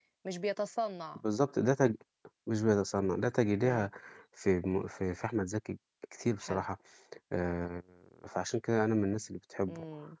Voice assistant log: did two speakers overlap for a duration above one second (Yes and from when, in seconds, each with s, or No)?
No